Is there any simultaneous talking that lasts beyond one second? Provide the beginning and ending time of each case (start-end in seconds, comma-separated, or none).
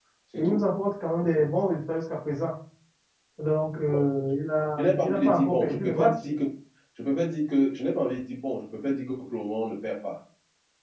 4.8-6.1